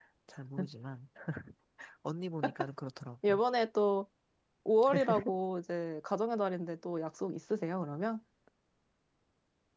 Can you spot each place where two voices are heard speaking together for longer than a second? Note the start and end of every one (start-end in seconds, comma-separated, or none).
none